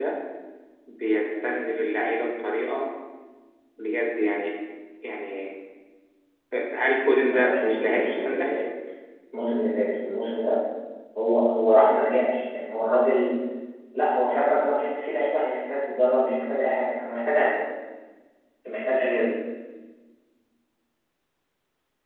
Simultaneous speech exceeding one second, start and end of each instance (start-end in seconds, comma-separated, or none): 7.3-8.5